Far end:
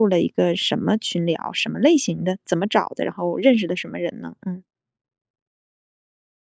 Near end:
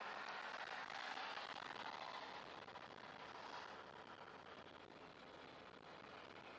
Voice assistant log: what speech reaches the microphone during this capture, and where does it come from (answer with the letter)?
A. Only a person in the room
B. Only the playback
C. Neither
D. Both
C